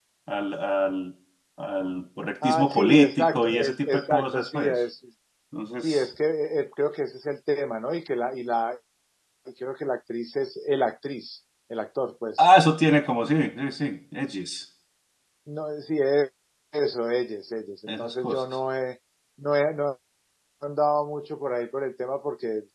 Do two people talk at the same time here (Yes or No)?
Yes